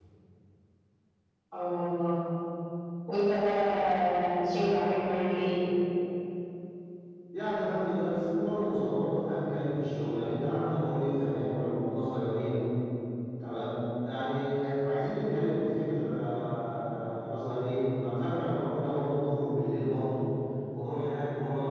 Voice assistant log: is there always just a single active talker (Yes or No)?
Yes